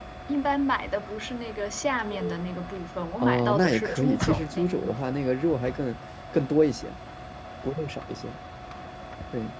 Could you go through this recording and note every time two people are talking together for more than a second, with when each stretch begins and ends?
3.2-5.2

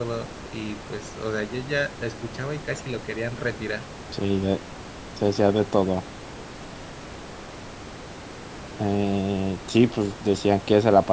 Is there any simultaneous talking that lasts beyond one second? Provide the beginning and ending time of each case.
none

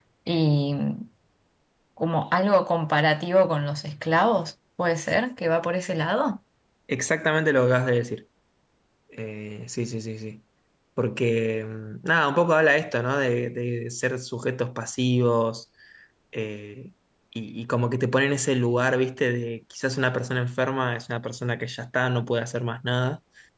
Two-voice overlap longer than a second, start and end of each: none

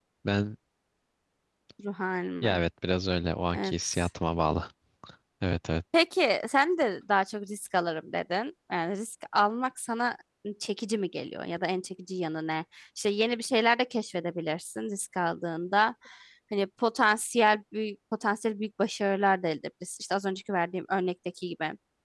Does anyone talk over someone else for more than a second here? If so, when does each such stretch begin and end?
none

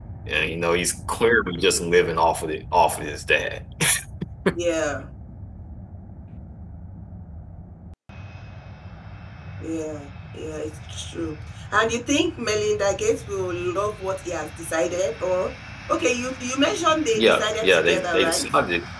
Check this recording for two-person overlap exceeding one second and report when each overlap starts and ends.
17.1-18.4

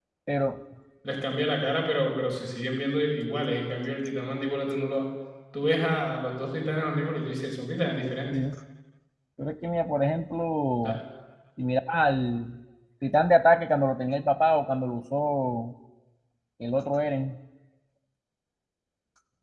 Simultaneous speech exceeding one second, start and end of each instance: none

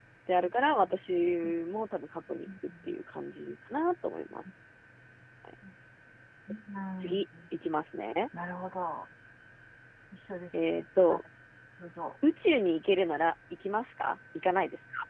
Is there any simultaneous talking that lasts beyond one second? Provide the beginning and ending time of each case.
none

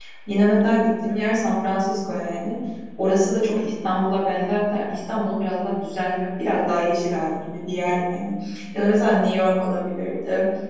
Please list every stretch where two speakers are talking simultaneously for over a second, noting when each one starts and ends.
none

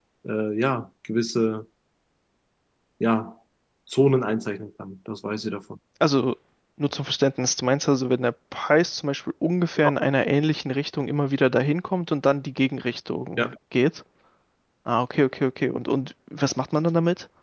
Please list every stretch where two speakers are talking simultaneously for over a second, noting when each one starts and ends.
none

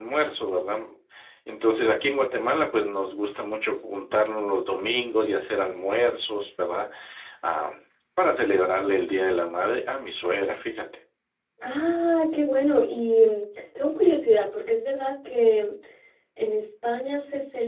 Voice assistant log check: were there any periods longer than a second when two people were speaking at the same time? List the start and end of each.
none

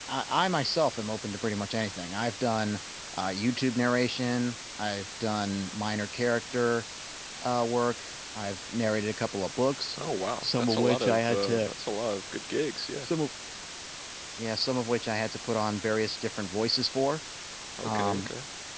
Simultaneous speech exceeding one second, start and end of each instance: 10.4-11.7

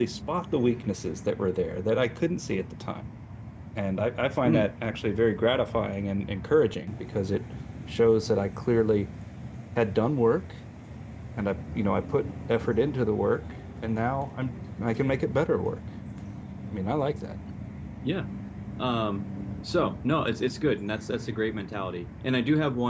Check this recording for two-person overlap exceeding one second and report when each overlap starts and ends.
none

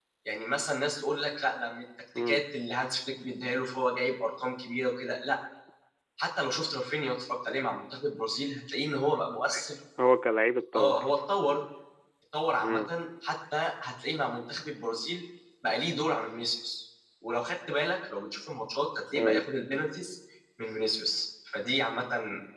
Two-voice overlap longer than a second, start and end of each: none

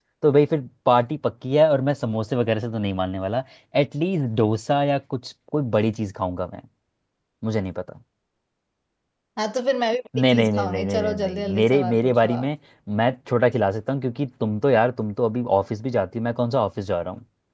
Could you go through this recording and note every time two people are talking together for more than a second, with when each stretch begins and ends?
10.2-12.5

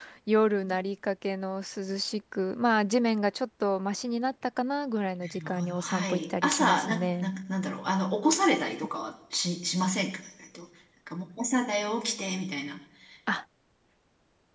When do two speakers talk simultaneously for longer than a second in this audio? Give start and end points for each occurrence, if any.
5.2-7.3

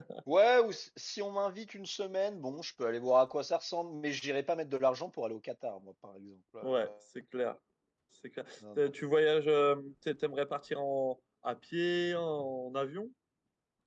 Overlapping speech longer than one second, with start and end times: none

